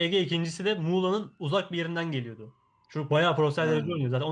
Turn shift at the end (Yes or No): No